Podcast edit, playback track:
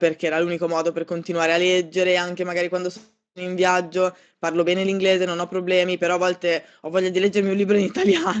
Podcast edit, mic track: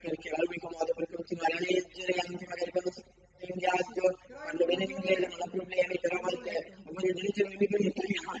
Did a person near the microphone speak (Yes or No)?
Yes